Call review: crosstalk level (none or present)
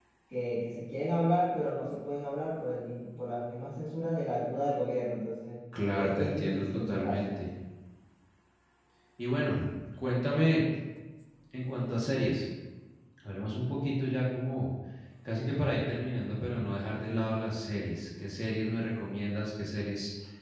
present